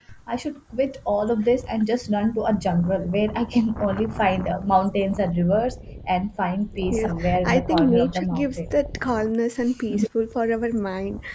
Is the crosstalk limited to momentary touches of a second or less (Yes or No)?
No